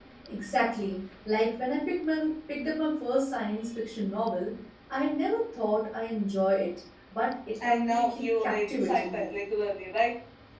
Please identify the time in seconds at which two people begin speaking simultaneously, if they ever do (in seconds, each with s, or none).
7.5 s